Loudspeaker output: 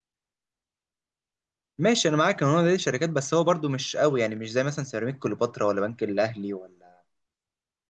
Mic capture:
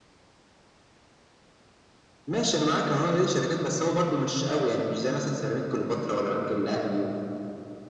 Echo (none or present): present